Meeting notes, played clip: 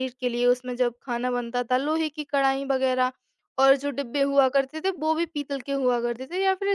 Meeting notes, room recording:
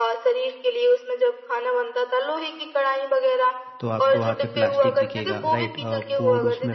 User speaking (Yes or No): Yes